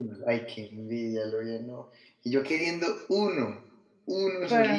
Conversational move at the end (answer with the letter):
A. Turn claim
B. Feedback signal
A